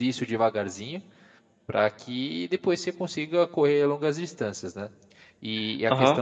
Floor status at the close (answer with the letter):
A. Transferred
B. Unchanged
B